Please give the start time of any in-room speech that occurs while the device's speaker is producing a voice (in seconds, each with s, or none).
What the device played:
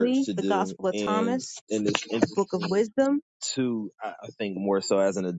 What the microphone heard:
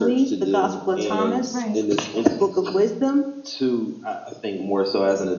1.5 s